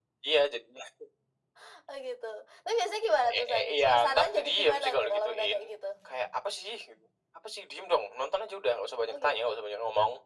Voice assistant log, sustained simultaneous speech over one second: present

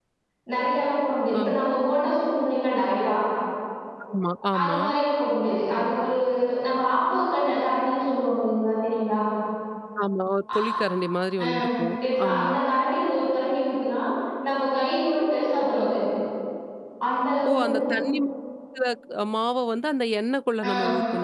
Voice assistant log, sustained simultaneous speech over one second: none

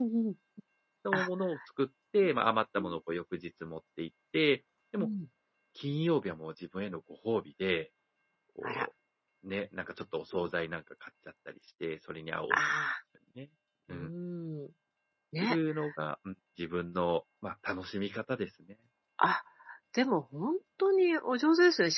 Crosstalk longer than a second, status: none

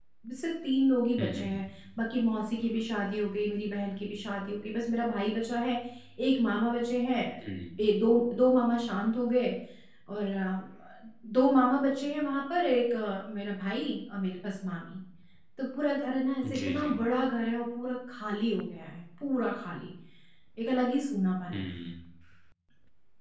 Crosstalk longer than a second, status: none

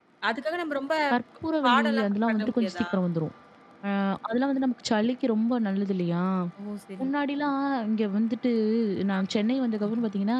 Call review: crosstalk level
present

